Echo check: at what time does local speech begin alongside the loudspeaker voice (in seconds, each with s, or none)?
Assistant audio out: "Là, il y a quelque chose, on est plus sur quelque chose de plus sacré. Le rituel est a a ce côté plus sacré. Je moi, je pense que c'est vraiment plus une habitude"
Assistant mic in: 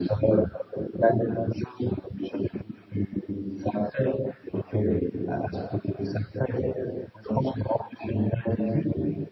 none